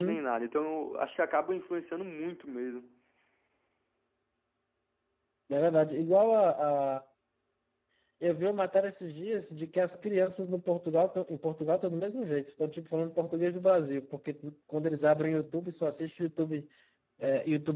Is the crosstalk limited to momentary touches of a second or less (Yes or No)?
Yes